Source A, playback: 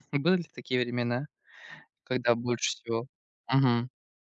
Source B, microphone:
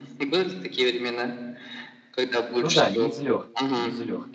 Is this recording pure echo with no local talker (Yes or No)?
No